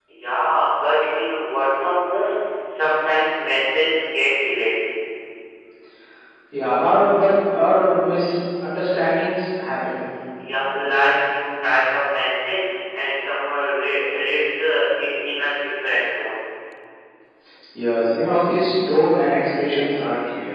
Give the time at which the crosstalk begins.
none

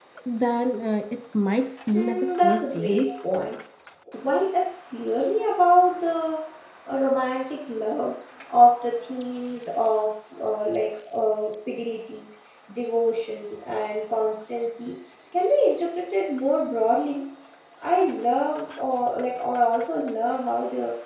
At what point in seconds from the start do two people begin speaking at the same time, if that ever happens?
1.9 s

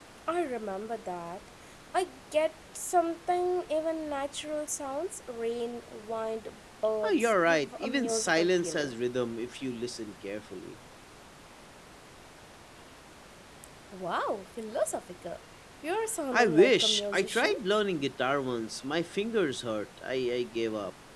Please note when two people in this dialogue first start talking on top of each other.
7.0 s

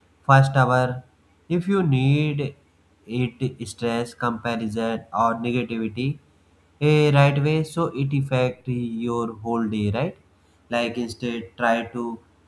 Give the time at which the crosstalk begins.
none

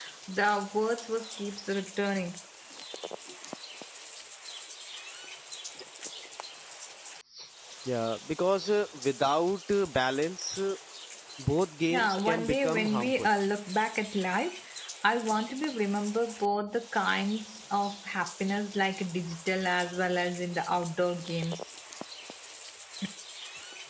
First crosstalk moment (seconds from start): 11.9 s

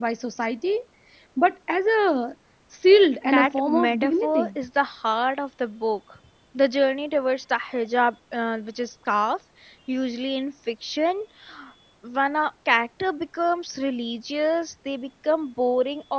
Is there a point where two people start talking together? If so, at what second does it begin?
3.2 s

